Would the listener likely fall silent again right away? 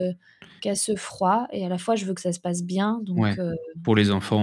No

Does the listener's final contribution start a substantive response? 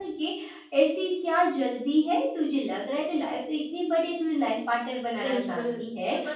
Yes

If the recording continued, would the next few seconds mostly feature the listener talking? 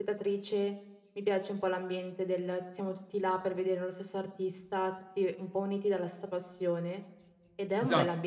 No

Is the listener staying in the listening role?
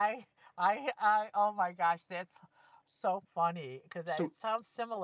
Yes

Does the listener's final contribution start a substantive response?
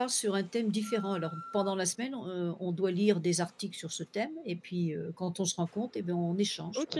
Yes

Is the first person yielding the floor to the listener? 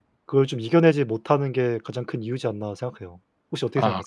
Yes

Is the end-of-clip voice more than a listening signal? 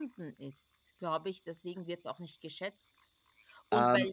No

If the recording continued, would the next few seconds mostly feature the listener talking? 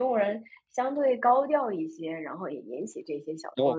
Yes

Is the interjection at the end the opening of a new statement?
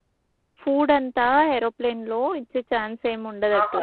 Yes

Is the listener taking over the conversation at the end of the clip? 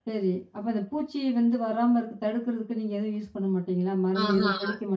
Yes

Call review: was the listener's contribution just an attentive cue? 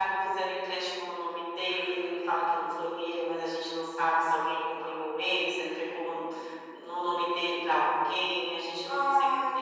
Yes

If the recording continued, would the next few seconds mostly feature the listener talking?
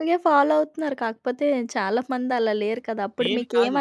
No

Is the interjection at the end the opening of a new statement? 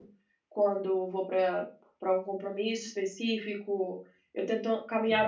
No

